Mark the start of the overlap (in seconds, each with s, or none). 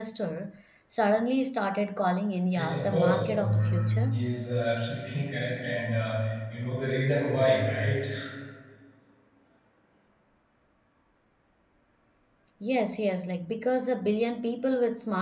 2.6 s